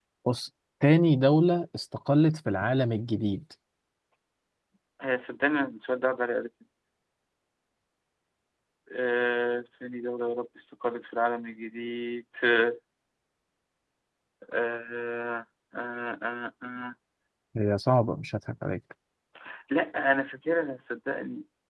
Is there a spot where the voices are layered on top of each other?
No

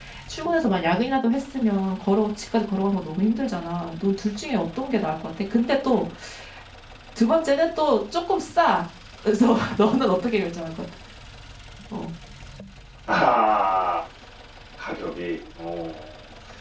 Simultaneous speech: No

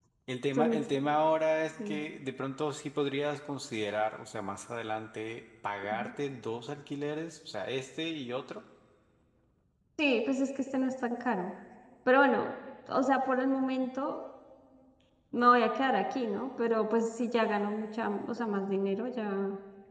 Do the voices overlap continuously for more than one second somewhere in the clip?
No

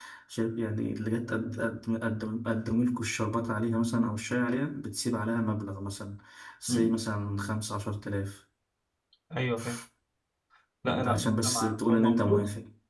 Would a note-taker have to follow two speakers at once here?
Yes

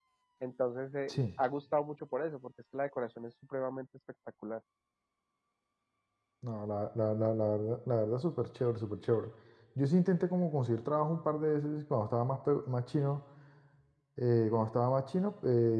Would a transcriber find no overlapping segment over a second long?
Yes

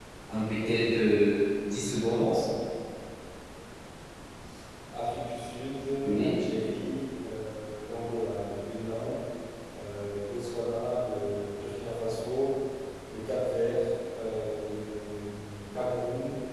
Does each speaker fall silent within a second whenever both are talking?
Yes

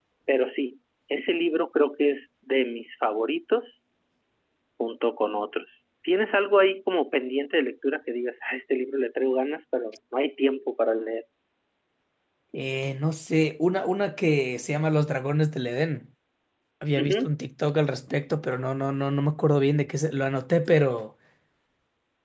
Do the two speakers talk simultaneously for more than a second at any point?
No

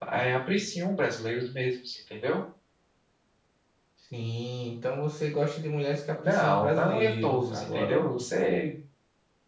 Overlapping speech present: Yes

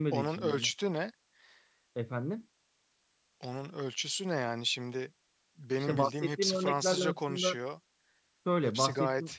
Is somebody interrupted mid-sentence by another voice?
Yes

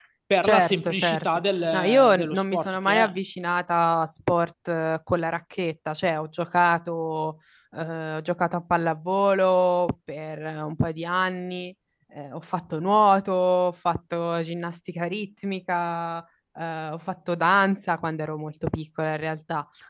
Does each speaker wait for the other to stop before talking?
No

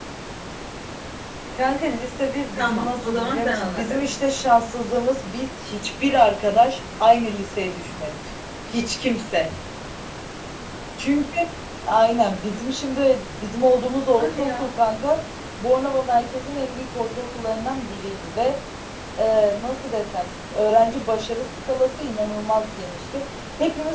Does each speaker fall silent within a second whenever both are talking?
No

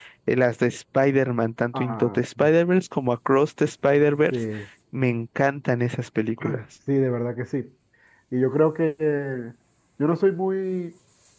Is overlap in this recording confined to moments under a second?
Yes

